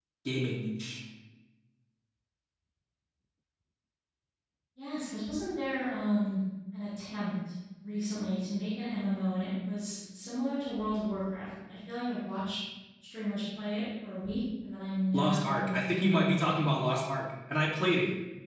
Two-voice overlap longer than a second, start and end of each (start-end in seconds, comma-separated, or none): 15.1-16.6